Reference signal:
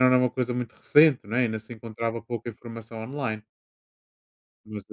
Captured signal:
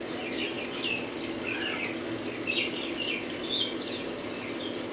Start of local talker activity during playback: none

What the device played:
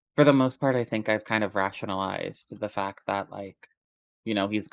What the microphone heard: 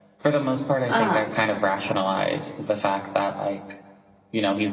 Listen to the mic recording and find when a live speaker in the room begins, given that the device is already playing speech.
0.9 s

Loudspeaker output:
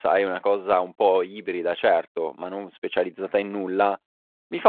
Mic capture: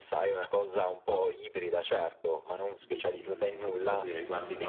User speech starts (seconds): 2.8 s

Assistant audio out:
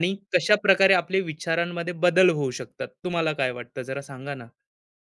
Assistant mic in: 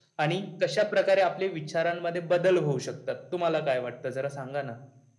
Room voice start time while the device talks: none

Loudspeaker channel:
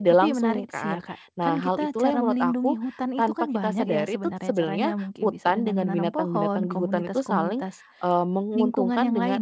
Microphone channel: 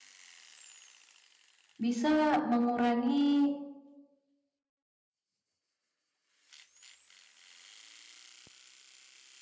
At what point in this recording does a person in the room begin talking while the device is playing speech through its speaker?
1.8 s

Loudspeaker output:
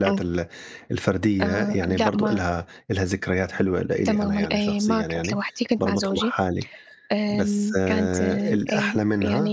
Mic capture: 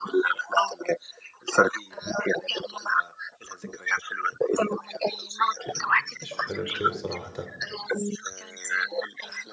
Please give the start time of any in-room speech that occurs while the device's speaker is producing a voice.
5.6 s

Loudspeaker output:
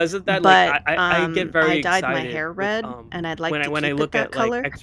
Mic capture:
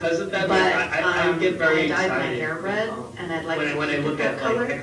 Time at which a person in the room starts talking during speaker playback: none

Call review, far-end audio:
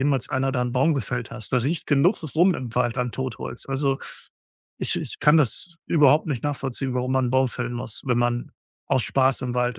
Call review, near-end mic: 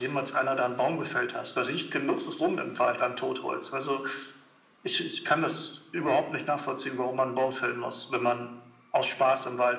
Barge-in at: none

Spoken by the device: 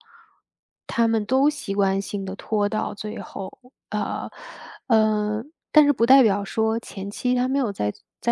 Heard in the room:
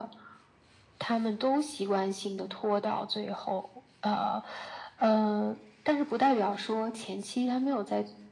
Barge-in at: none

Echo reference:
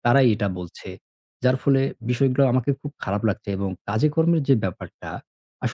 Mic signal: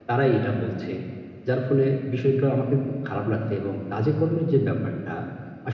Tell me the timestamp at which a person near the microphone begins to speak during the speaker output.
none

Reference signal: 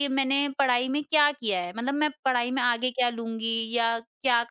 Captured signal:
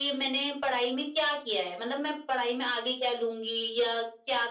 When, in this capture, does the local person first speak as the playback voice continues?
none

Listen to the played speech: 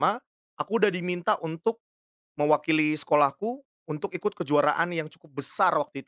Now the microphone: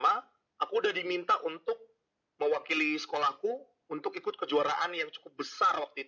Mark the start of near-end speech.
none

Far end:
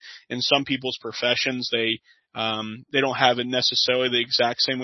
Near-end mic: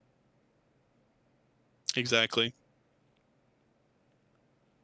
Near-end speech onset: 2.0 s

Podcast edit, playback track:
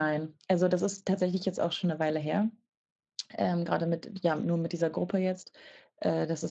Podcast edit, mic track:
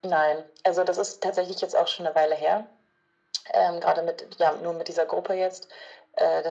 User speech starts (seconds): none

